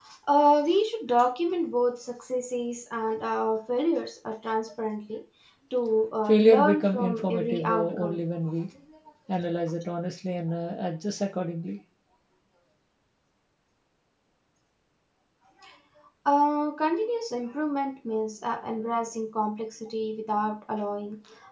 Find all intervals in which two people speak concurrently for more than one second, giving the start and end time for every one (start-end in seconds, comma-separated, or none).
6.2-8.2